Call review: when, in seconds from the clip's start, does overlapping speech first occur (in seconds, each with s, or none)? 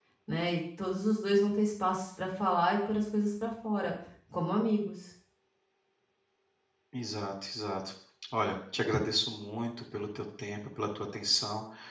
none